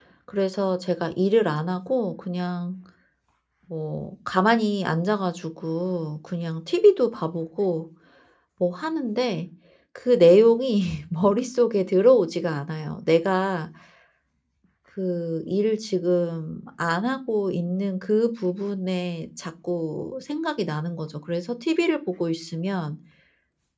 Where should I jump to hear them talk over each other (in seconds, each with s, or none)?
none